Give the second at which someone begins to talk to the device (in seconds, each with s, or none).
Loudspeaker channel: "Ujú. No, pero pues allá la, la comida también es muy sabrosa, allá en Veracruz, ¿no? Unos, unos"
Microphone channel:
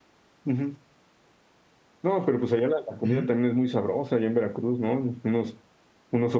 3.0 s